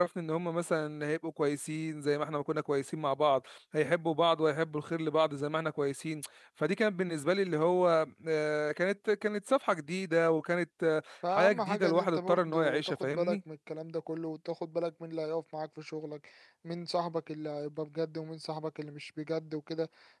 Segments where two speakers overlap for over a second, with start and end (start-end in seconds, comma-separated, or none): 11.3-13.4